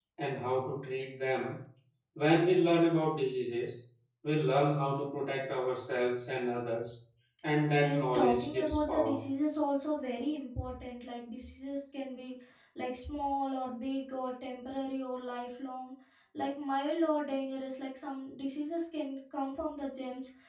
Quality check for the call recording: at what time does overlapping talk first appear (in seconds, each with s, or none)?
7.8 s